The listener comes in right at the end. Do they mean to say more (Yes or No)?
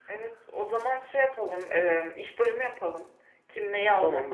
No